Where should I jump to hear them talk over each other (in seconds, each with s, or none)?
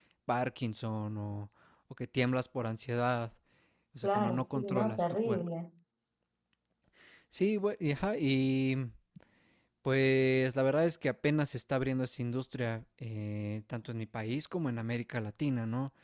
4.0 s